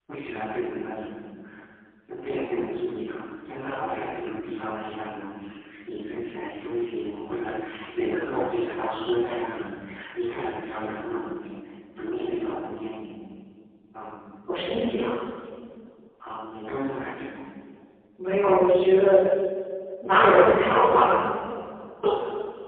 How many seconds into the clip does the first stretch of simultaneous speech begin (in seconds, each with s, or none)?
none